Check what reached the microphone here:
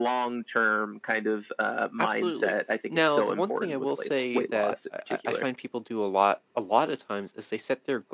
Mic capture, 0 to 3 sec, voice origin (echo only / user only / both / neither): both